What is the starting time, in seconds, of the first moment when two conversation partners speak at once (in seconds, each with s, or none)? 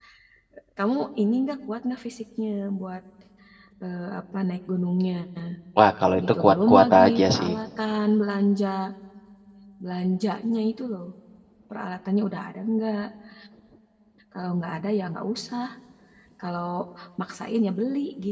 6.3 s